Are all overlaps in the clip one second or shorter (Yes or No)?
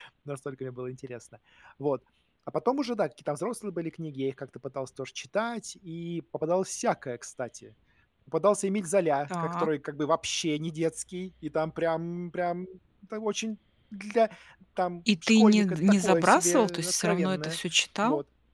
No